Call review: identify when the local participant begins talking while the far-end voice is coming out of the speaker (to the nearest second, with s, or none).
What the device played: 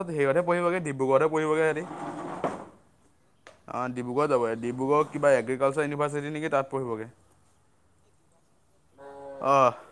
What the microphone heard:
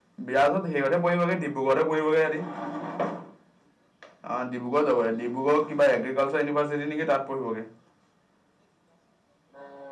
none